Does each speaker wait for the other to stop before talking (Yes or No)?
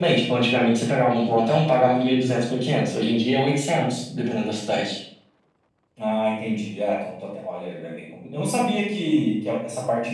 Yes